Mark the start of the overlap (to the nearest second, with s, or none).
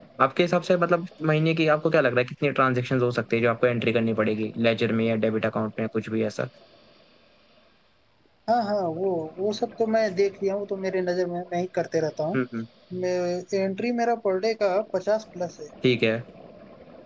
none